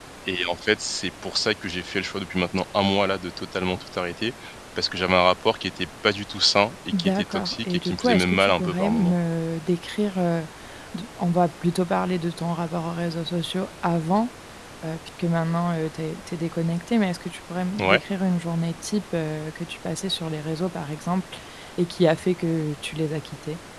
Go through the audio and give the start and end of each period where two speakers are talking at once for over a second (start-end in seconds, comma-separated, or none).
7.0-9.2